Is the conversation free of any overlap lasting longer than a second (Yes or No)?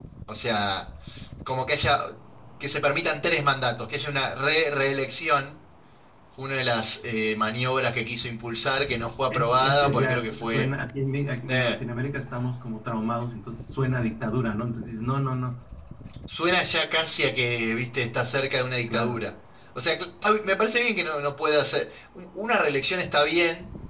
No